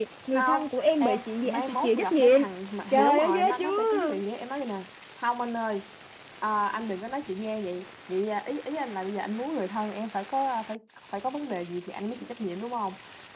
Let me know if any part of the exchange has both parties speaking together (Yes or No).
Yes